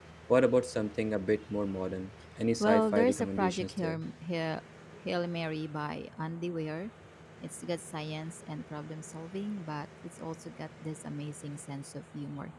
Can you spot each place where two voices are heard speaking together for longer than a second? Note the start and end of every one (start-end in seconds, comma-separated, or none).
2.6-4.0